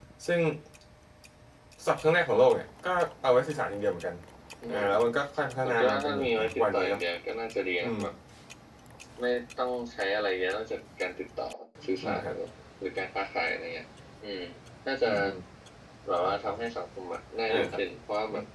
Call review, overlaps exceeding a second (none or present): present